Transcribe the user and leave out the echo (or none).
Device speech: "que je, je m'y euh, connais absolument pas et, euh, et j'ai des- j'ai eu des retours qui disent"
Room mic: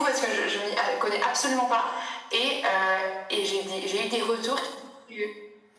none